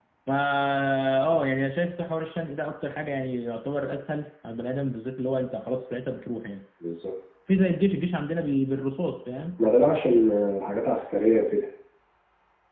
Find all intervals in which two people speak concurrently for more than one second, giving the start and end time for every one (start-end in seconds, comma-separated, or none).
none